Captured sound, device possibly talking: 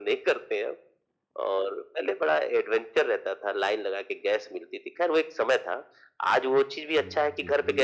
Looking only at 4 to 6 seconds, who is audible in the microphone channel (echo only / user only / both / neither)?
echo only